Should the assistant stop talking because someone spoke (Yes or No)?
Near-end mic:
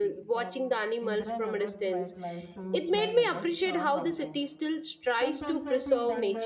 Yes